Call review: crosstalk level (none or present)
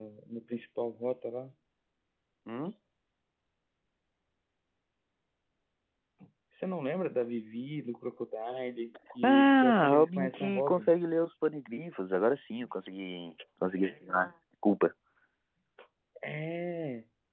present